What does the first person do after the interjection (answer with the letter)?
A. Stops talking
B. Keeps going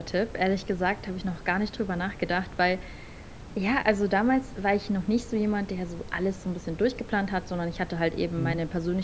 B